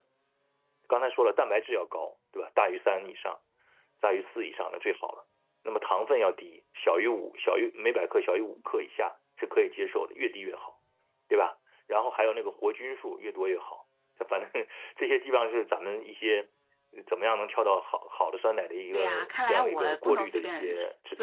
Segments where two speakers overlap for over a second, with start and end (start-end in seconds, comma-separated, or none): 18.9-20.7